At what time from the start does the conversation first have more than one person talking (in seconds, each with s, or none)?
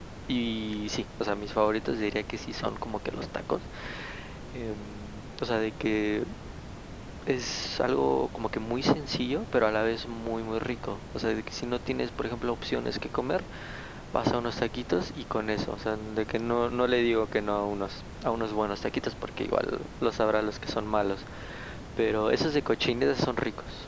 none